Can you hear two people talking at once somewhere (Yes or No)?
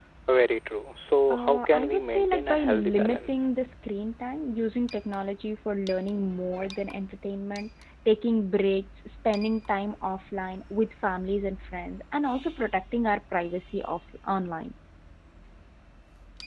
Yes